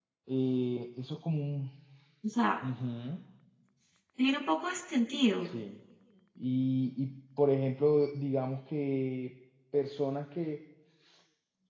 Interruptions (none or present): none